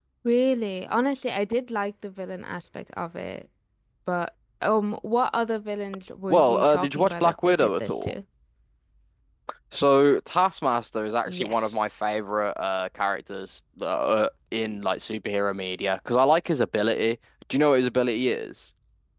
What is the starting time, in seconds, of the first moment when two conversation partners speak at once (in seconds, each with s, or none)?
6.3 s